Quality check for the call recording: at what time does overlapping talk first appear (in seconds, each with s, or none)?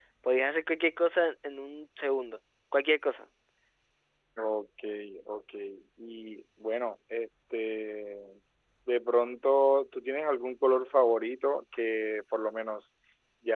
none